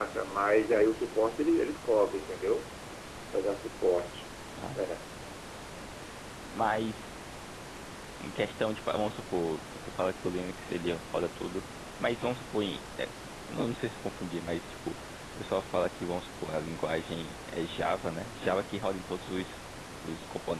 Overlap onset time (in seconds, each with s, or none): none